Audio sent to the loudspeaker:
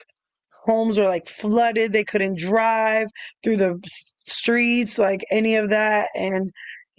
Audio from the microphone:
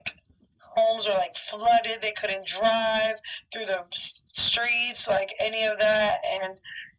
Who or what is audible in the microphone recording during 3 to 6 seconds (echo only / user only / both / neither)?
echo only